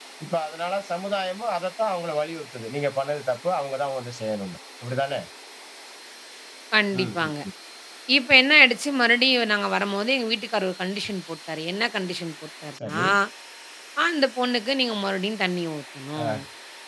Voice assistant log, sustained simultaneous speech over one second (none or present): none